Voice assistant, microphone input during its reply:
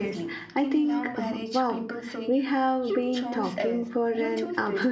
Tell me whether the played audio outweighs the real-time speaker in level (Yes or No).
No